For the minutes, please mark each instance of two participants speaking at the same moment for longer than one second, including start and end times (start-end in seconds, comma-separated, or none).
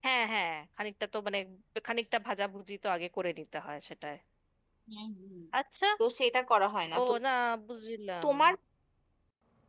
none